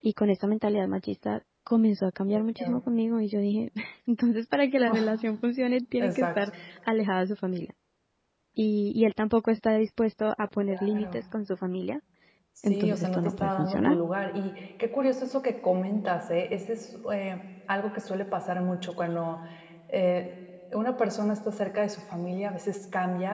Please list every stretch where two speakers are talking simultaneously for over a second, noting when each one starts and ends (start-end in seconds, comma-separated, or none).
12.7-13.9